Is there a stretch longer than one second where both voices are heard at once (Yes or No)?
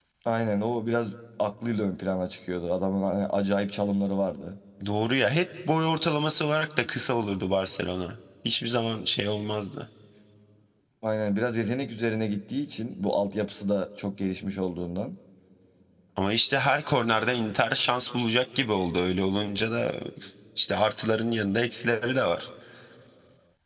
No